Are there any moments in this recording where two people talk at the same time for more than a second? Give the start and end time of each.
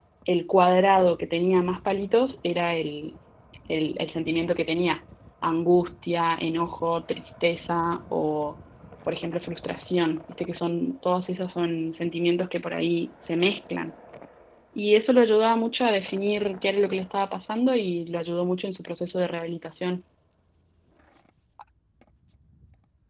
none

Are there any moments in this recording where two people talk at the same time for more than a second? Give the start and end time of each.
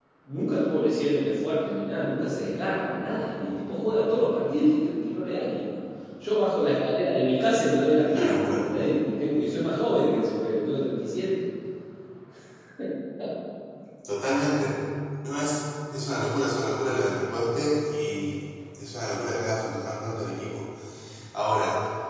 none

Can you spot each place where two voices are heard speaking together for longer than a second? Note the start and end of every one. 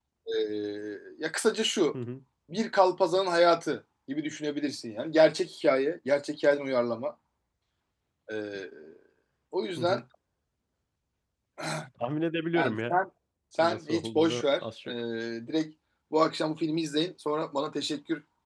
13.6-14.9

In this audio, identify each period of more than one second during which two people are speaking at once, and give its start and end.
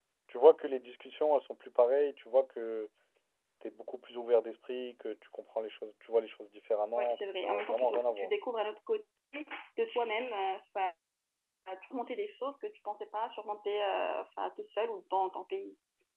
7.0-8.3

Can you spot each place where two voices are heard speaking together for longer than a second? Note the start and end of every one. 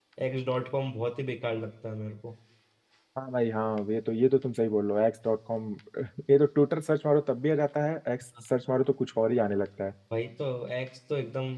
none

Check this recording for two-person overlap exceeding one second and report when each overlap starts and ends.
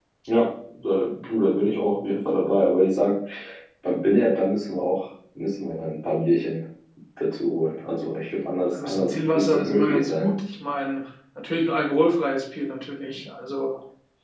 8.7-10.3

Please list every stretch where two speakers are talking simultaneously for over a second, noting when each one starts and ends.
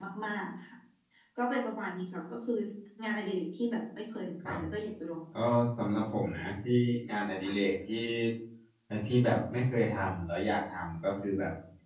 none

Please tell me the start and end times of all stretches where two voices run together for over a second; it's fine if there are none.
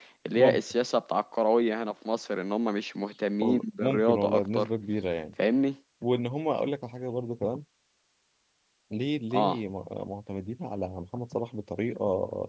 3.4-4.7

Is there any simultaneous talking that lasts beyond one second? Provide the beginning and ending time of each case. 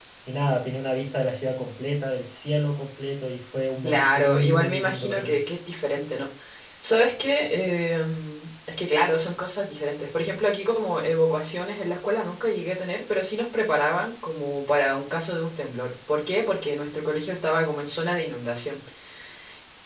3.8-5.4

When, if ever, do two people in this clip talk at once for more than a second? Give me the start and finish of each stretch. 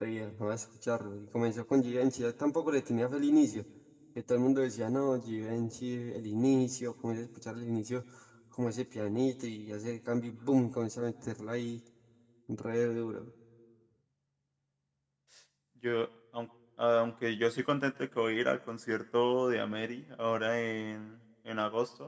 none

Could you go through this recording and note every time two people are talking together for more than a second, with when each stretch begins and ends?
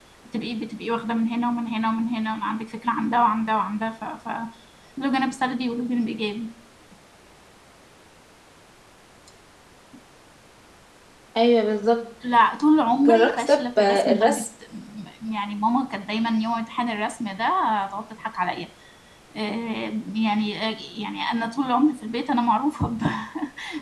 13.0-14.4

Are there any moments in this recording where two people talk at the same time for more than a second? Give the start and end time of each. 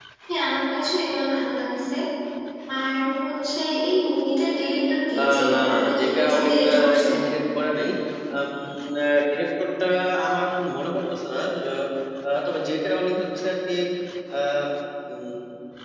5.2-7.1

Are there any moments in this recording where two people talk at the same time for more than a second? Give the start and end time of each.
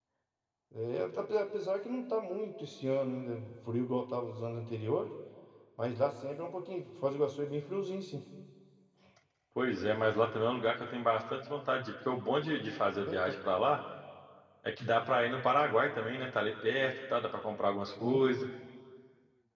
none

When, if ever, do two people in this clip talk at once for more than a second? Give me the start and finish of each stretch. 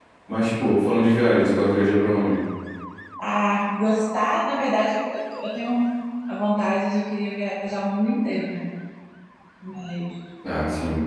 none

